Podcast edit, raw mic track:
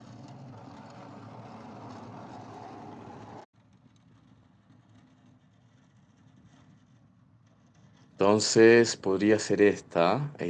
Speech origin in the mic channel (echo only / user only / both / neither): user only